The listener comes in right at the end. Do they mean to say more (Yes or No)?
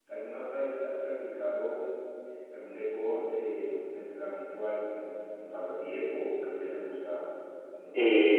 Yes